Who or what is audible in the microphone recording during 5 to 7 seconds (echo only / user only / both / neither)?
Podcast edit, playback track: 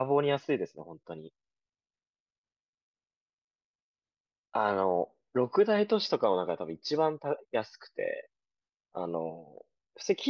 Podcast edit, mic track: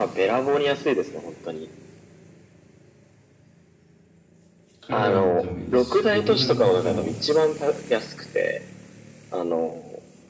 both